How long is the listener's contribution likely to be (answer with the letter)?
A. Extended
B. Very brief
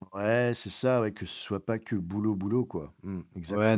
A